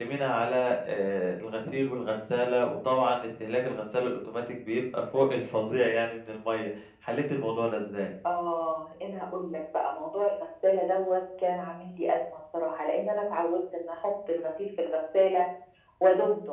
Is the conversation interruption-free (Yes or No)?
Yes